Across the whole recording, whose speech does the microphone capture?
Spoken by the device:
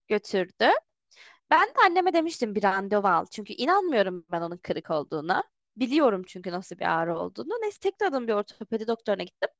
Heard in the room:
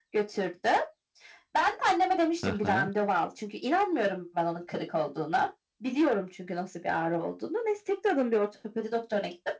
both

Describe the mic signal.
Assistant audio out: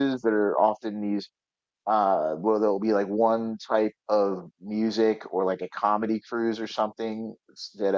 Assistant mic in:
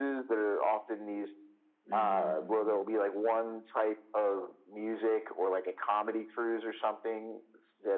both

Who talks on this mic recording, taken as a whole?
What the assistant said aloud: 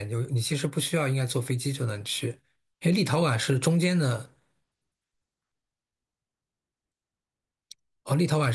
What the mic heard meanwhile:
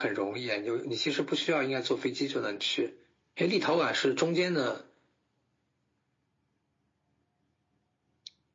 echo only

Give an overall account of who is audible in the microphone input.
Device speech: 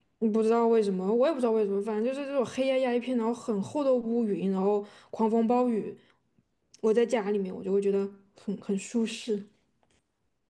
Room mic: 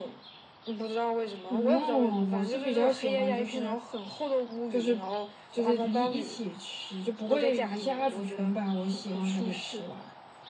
both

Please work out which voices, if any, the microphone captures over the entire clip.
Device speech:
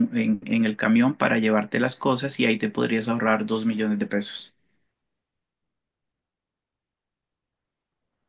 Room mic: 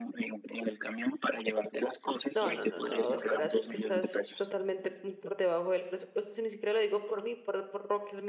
both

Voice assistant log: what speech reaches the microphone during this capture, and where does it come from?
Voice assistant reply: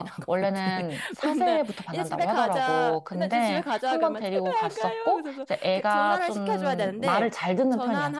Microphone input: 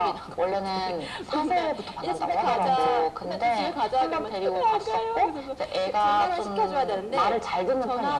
both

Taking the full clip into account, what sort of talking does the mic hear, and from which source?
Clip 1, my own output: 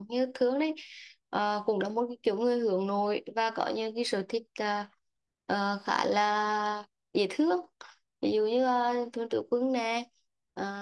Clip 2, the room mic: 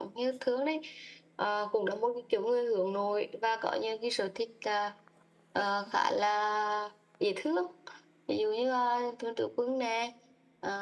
echo only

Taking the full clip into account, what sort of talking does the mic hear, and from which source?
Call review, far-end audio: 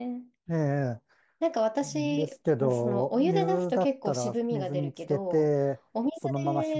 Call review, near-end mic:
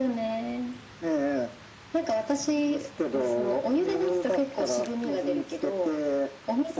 echo only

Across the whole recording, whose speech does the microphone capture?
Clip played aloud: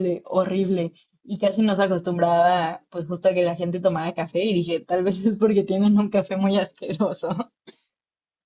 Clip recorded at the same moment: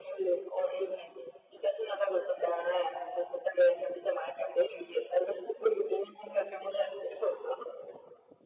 echo only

